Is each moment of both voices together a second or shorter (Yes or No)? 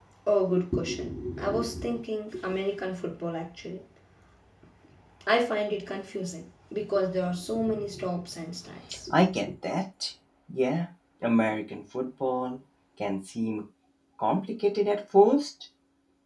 Yes